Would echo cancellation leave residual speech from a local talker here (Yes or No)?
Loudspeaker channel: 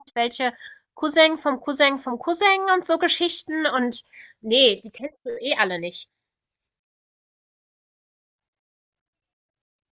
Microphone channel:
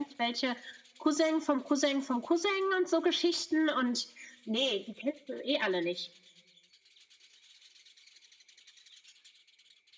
No